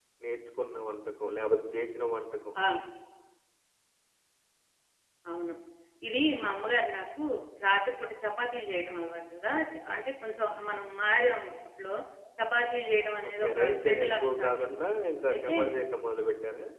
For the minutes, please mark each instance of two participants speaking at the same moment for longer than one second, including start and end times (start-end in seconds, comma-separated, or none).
13.3-14.8